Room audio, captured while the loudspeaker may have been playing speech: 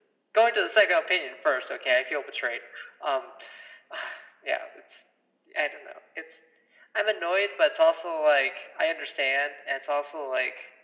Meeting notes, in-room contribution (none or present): none